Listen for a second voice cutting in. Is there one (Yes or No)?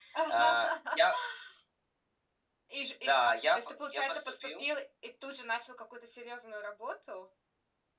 Yes